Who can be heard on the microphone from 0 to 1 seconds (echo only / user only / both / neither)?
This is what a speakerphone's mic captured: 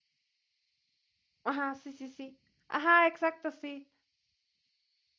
neither